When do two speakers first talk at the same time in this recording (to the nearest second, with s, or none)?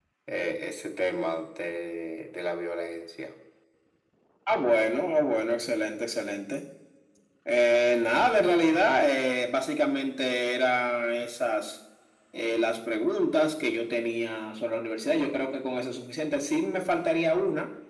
none